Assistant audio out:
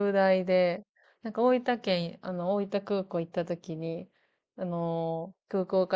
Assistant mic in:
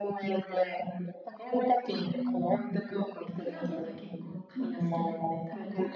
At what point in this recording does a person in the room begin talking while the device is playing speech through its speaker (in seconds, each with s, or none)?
2.1 s